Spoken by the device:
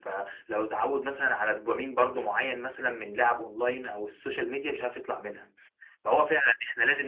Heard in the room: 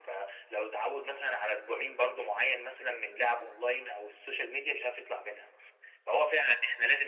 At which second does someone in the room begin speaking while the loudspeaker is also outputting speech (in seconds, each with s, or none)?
none